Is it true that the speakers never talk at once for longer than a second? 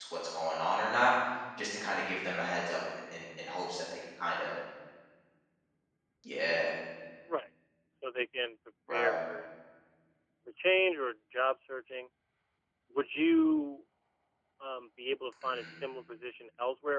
Yes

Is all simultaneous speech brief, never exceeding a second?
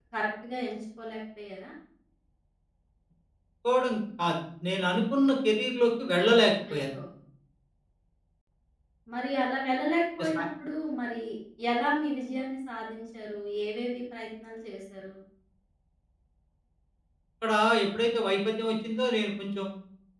Yes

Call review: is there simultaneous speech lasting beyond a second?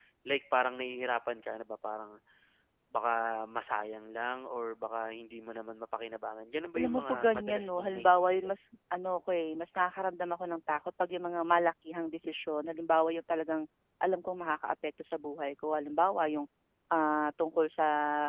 Yes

